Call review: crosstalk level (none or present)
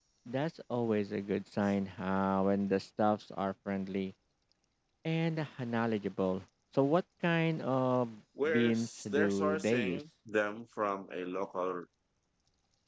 present